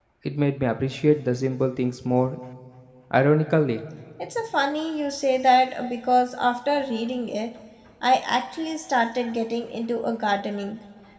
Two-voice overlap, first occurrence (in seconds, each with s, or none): none